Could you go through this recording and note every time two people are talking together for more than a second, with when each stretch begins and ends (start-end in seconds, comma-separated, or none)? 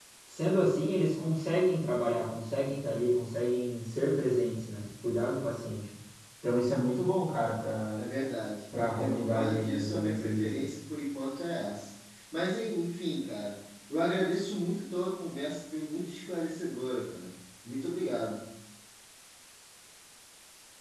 9.0-10.6